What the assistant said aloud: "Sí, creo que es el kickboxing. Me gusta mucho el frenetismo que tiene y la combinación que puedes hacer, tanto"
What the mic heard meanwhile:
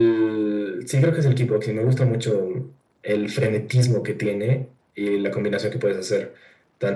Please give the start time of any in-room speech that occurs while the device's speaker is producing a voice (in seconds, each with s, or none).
none